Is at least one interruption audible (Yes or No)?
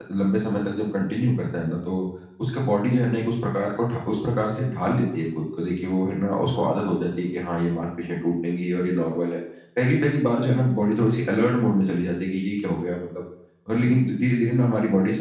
No